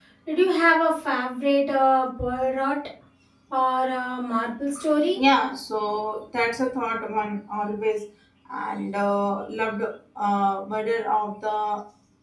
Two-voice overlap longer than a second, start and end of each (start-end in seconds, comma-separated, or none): none